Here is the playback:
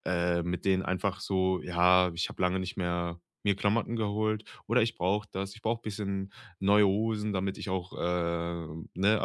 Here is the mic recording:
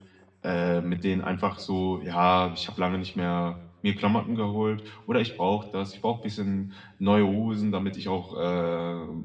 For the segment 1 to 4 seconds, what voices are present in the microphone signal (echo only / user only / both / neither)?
echo only